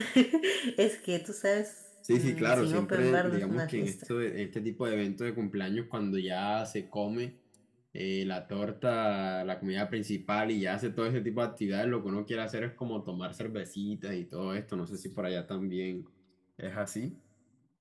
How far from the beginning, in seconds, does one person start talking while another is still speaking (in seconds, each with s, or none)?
2.0 s